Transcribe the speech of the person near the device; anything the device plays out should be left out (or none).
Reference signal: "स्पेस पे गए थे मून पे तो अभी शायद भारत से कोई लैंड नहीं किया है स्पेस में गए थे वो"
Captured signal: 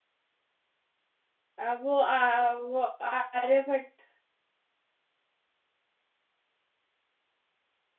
आ, वो आ, वो आर्यभट्ट